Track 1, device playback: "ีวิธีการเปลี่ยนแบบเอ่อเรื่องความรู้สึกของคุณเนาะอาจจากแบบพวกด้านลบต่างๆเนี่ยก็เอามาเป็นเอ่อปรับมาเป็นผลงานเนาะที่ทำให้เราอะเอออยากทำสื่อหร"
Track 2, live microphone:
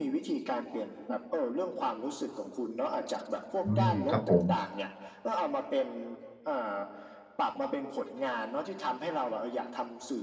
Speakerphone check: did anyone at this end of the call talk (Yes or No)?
Yes